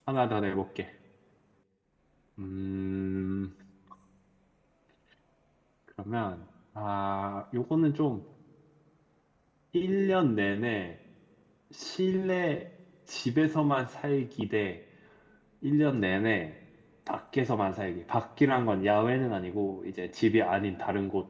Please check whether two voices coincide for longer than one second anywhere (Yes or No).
No